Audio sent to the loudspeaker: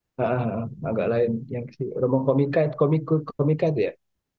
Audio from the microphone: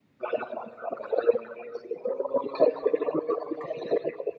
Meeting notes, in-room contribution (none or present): none